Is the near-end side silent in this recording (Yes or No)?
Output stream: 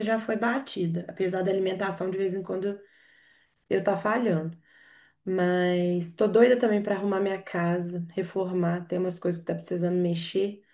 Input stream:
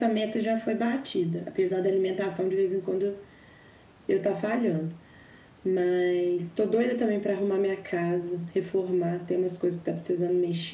Yes